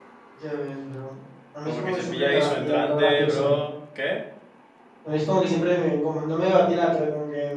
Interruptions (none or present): present